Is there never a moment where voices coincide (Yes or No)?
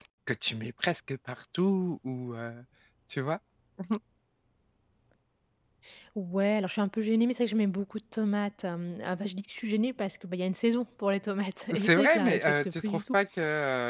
No